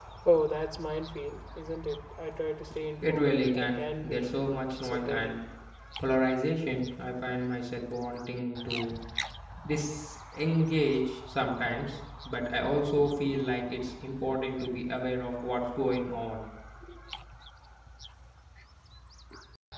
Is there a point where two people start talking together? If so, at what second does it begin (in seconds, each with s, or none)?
3.1 s